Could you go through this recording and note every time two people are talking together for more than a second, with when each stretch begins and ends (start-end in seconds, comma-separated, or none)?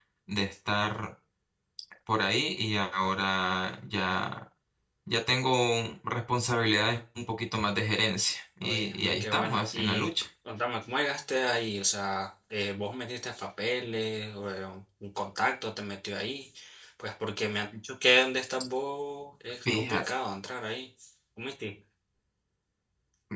8.6-10.1